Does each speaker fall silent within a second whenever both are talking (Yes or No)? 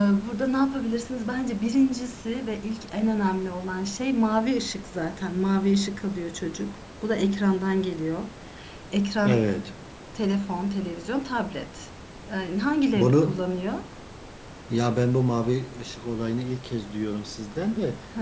Yes